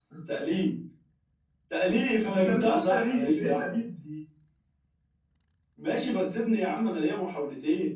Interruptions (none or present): present